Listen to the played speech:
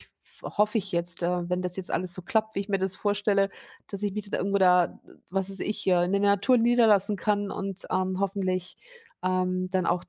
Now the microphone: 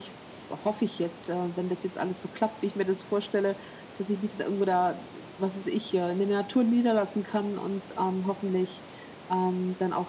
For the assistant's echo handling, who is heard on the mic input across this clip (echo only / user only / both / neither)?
echo only